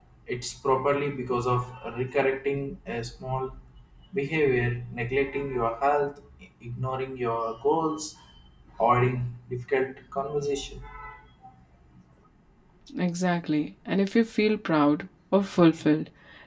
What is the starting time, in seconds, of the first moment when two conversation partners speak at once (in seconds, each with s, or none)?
none